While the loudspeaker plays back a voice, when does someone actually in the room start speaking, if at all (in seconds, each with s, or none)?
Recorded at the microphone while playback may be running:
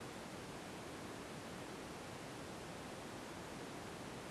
none